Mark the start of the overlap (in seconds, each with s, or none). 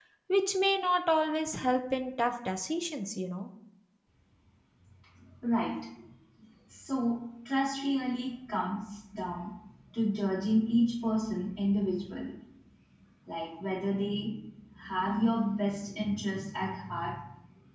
none